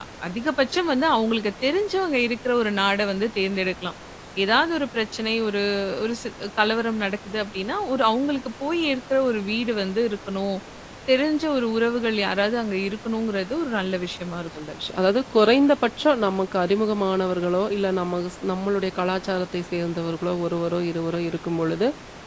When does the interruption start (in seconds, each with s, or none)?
none